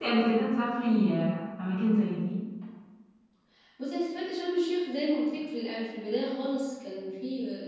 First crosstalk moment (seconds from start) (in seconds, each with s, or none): none